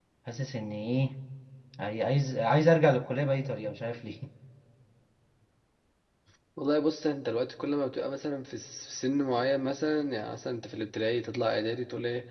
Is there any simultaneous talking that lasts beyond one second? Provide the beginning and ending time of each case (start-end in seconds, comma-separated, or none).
none